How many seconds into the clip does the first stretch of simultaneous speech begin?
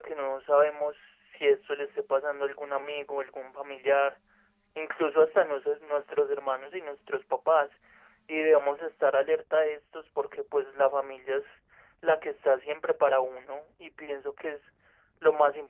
none

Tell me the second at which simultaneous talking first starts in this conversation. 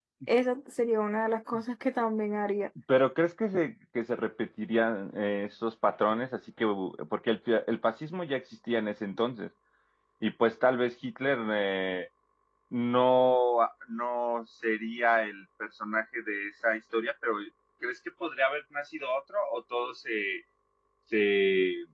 none

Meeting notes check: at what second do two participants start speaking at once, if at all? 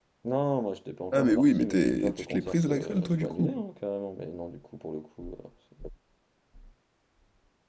1.1 s

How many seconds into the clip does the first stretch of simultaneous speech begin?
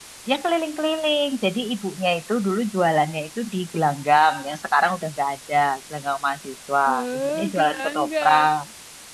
7.2 s

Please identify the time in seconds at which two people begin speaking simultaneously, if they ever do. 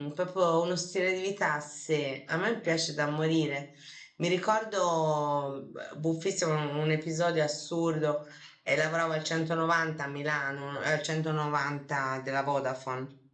none

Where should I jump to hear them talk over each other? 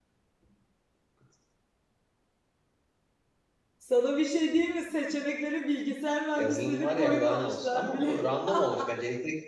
6.4 s

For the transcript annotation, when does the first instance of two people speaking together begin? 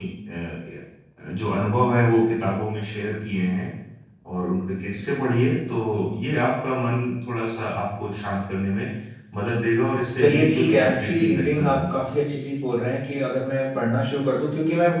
10.2 s

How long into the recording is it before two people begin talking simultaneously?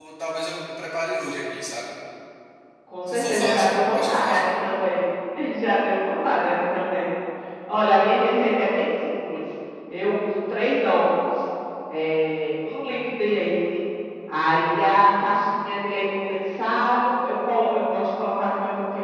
3.1 s

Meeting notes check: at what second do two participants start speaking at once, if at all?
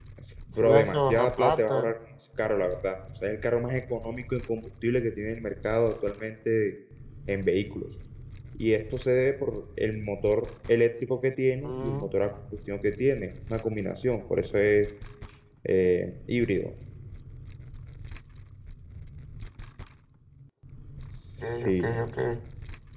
0.5 s

